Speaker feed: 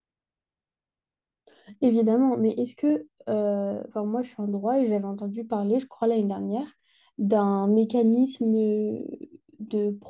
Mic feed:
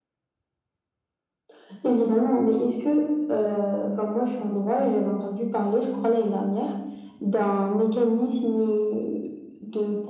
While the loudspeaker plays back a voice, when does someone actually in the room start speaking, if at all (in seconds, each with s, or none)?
none